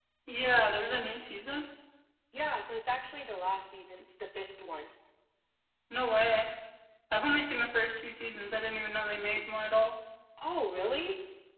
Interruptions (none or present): none